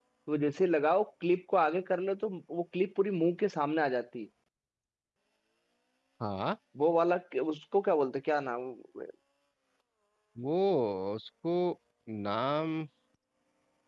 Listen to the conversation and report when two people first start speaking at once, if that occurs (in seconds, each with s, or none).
none